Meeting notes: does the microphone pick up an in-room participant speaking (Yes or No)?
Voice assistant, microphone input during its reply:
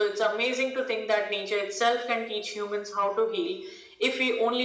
No